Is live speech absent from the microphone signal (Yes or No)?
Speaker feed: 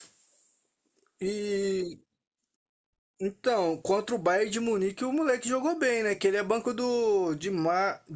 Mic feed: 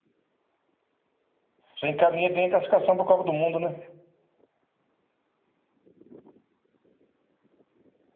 No